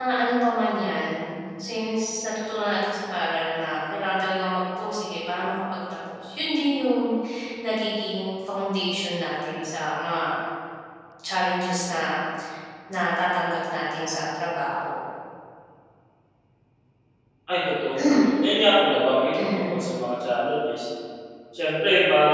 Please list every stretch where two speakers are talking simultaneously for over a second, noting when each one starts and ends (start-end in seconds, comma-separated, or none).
none